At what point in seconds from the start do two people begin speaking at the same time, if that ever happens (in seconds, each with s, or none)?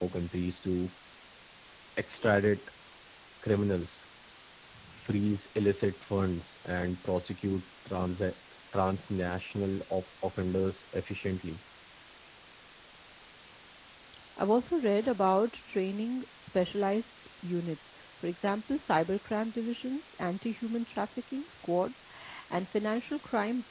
none